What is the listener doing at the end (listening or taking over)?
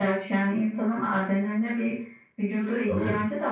listening